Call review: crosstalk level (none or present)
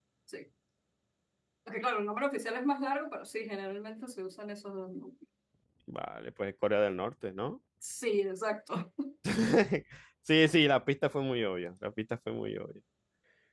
none